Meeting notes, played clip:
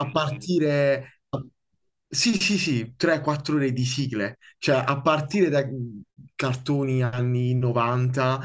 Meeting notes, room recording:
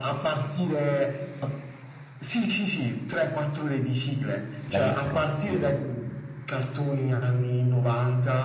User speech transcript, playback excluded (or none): La intro, dico.